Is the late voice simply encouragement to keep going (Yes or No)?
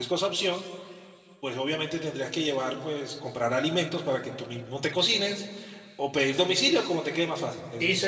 No